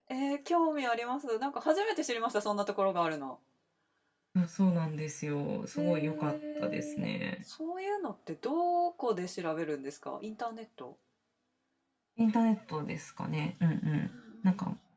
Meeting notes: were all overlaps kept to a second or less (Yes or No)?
No